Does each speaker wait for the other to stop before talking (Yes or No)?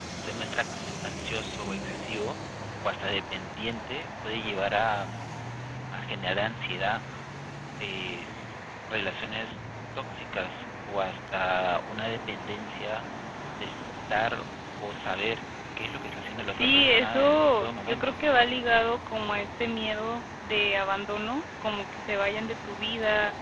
No